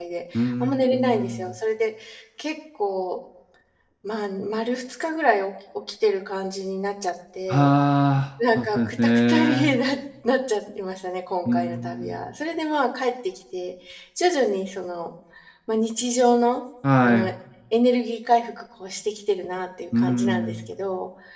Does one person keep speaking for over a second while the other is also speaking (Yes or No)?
Yes